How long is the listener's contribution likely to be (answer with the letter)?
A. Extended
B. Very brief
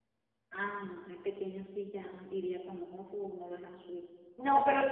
A